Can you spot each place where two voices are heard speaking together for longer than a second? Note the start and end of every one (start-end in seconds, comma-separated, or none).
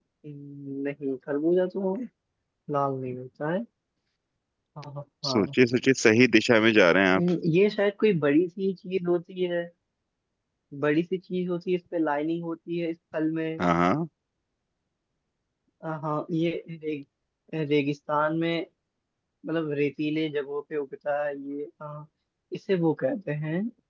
none